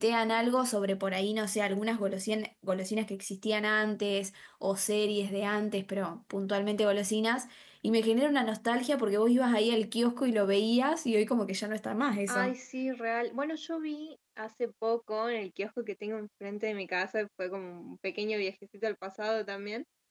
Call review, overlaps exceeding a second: none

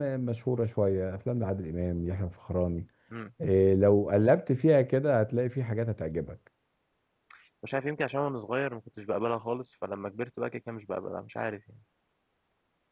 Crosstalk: none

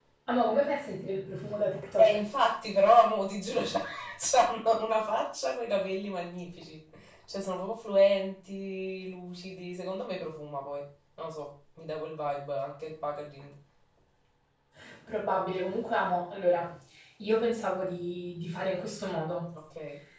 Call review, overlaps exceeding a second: none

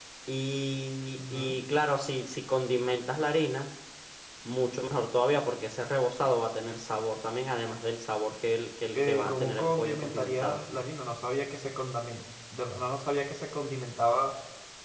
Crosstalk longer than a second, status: present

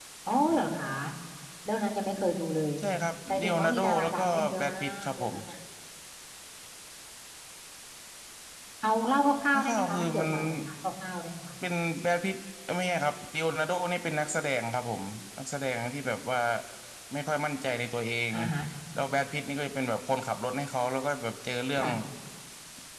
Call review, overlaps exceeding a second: present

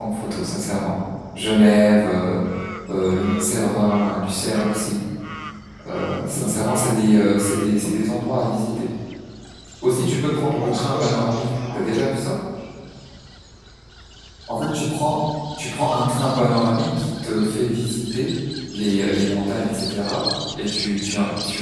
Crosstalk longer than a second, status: present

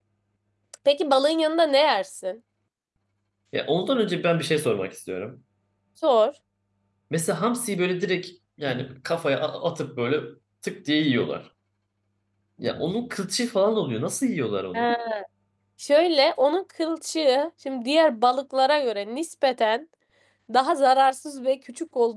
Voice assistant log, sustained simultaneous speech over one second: none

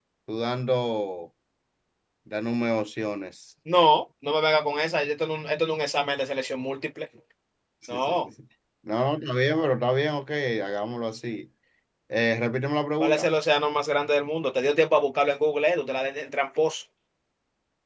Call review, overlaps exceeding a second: none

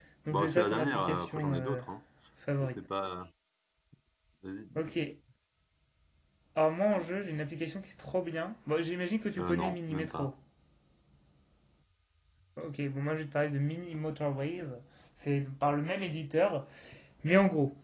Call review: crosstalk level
present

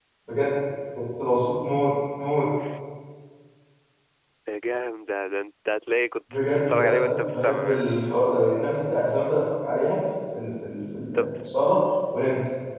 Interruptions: present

